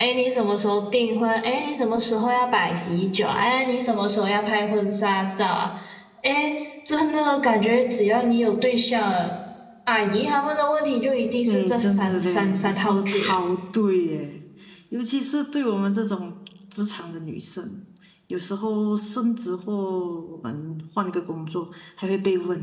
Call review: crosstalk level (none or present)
present